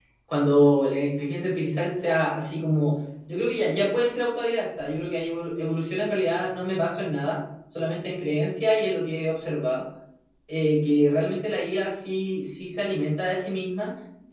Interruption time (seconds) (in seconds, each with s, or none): none